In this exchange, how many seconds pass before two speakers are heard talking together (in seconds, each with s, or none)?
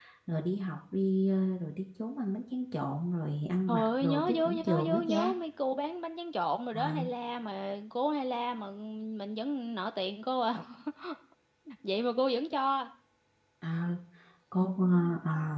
3.7 s